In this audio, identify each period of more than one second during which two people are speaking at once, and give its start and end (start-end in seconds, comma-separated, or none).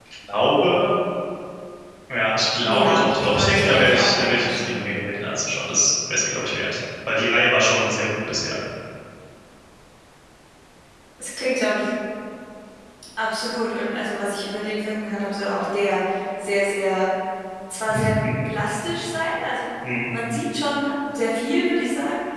2.6-4.8